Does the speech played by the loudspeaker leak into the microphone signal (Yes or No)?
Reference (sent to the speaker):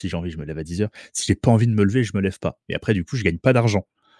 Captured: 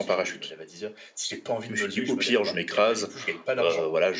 Yes